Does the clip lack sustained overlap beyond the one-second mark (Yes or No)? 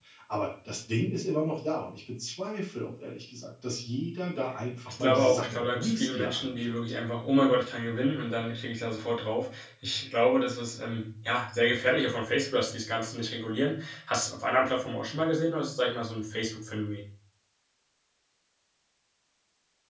No